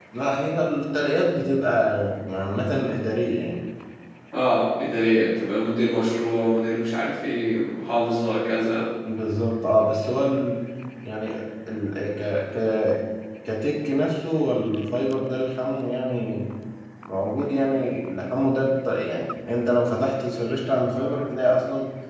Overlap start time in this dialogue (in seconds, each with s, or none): none